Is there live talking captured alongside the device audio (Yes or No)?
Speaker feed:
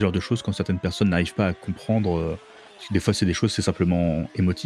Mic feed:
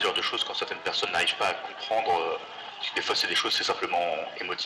No